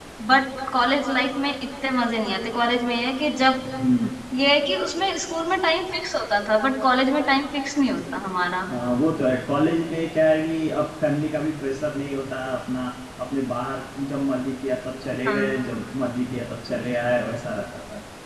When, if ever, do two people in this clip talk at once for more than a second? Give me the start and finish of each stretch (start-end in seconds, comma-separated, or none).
none